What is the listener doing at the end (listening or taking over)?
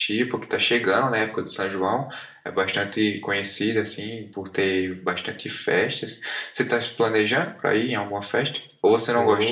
taking over